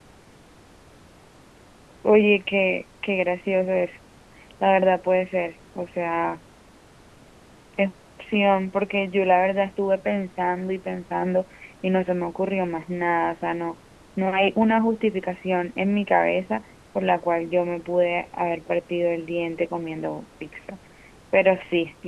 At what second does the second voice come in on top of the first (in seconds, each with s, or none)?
none